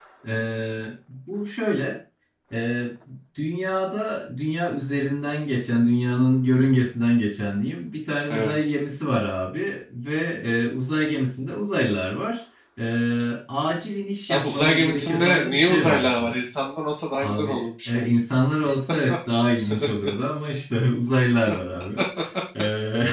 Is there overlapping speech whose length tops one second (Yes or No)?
Yes